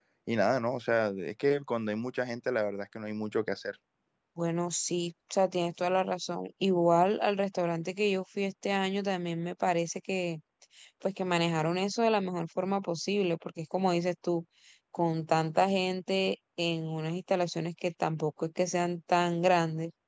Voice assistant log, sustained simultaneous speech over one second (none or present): none